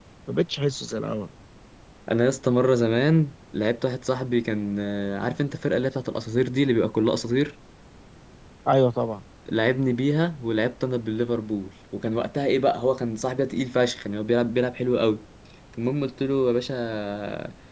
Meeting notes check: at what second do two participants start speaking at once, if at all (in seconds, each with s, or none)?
none